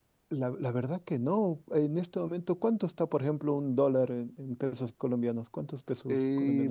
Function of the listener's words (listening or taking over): taking over